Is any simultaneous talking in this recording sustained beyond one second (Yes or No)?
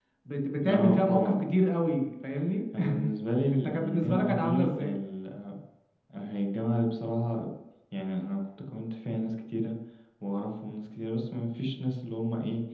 Yes